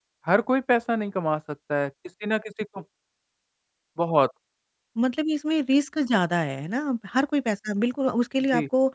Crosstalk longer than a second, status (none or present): none